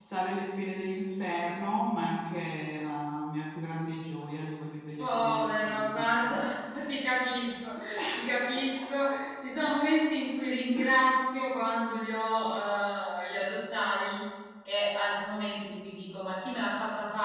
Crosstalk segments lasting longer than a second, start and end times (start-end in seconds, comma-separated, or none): 5.0-6.4